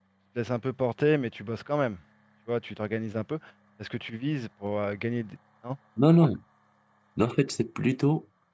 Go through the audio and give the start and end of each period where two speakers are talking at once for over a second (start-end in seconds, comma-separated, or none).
none